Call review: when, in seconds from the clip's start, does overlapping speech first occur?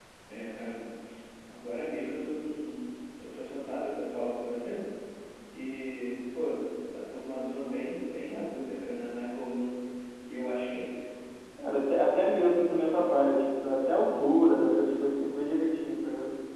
none

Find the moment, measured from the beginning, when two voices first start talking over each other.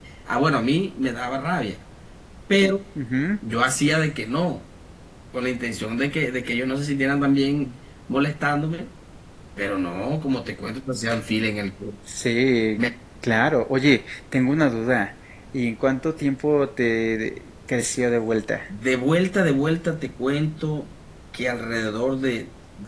none

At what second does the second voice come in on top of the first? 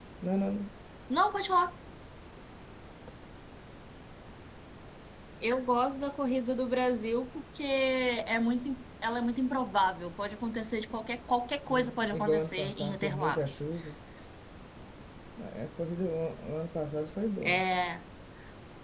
11.7 s

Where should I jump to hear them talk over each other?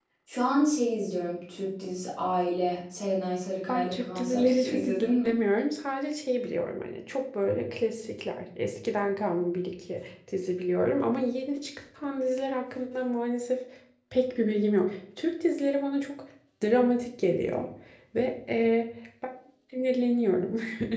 3.7 s

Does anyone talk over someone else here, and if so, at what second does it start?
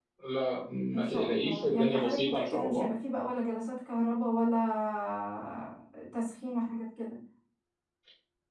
0.9 s

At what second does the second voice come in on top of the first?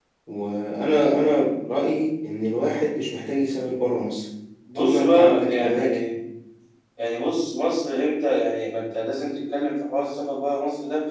4.8 s

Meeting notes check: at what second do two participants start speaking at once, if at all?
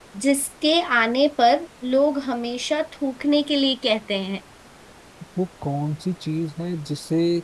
none

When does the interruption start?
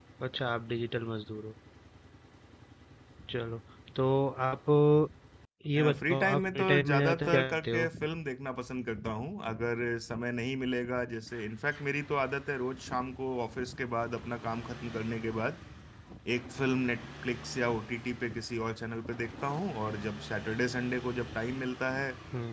6.0 s

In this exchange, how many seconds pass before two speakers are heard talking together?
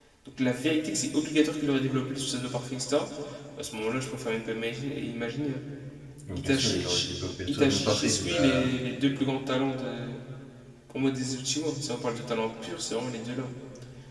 6.3 s

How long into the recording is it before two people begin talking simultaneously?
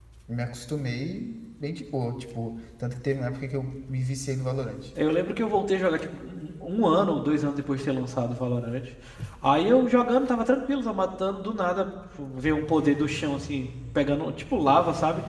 none

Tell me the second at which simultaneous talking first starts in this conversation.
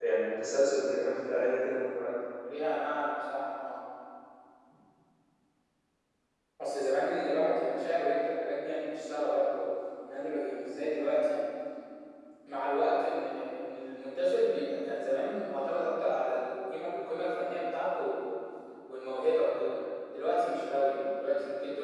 none

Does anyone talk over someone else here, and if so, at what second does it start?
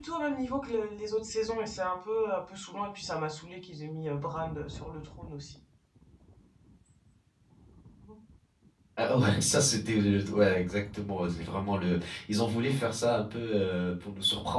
none

